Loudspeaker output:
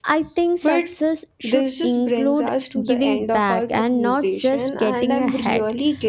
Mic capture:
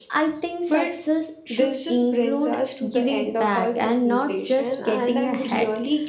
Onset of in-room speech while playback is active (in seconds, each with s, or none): none